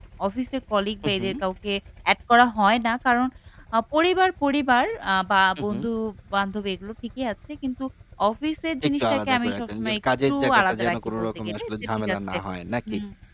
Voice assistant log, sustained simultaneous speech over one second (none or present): present